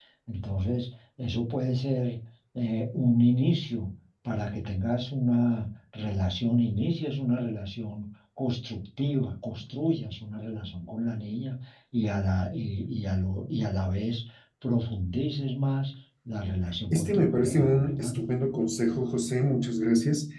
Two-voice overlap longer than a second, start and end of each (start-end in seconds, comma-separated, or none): 16.9-18.1